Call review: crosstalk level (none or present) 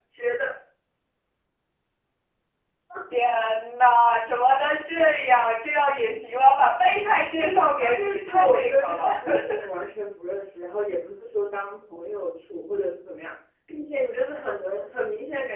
present